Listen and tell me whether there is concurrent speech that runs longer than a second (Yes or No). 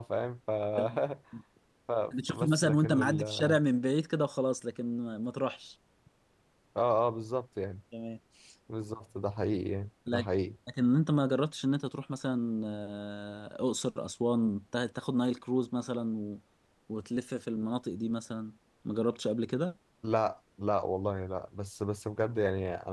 Yes